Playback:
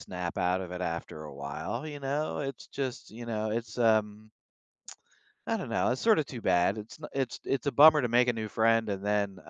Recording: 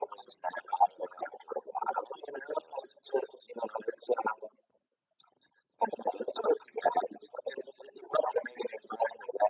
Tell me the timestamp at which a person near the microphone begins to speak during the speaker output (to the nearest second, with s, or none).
none